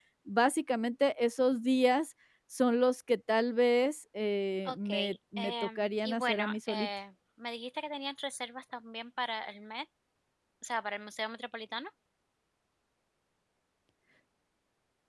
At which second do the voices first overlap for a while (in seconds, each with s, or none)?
4.7 s